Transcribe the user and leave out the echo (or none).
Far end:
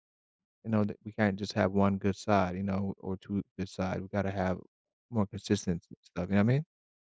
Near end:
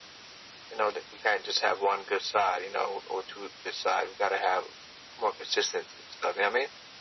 none